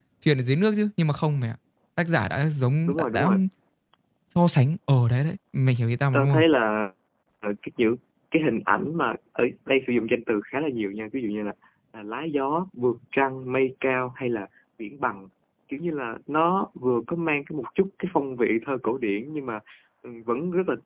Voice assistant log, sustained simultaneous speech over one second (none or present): none